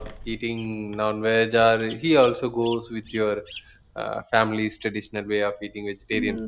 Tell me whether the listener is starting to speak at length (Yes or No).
Yes